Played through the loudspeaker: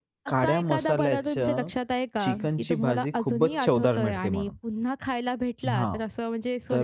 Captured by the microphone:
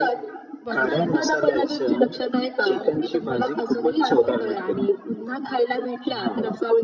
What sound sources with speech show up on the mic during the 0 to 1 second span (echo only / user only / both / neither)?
both